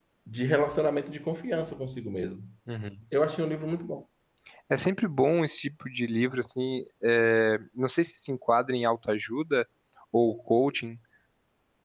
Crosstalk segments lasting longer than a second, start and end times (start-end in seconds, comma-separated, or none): none